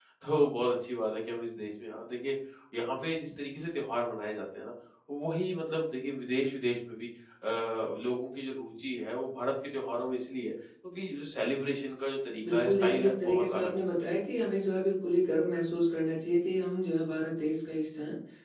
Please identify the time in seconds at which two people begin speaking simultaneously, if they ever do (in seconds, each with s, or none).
12.4 s